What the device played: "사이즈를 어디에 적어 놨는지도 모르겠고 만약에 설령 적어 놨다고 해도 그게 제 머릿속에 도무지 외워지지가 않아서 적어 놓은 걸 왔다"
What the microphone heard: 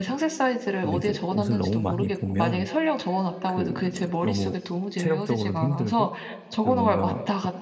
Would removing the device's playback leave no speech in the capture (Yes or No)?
No